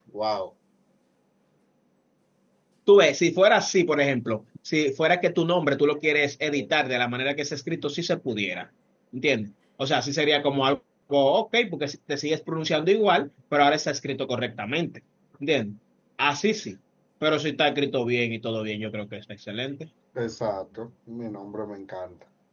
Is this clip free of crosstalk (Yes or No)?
Yes